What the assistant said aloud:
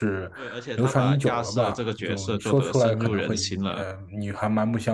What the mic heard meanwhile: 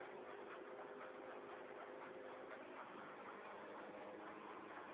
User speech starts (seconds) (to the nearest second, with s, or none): none